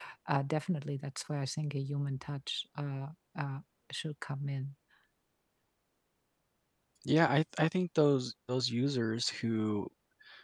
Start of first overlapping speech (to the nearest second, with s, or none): none